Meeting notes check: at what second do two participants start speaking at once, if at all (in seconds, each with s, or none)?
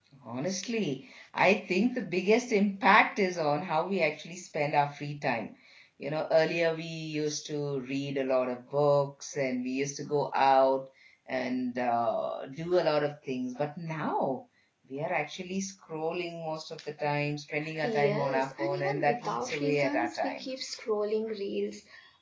17.6 s